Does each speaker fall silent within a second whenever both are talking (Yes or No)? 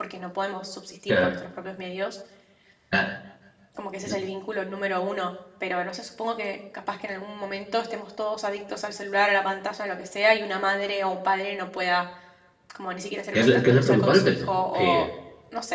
No